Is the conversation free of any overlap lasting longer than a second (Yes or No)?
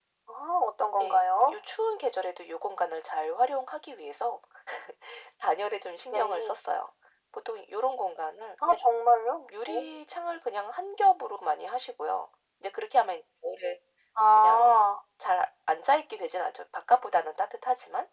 Yes